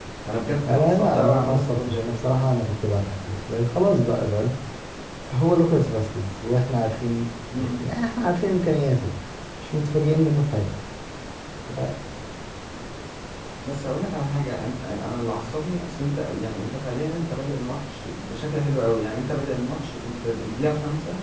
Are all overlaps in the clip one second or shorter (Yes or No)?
No